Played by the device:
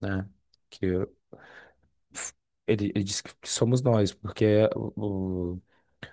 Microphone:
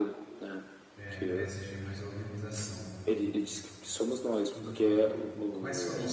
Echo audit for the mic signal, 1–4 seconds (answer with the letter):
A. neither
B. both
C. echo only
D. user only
B